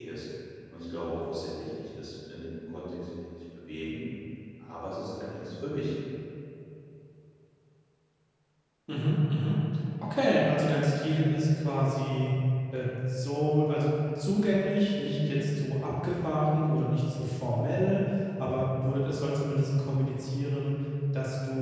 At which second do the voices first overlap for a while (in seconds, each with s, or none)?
none